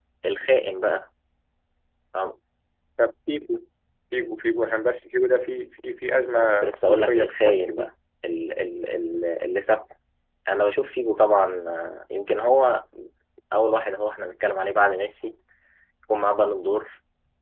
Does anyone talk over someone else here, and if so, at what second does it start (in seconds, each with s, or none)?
6.3 s